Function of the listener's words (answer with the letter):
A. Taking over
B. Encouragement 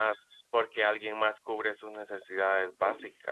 B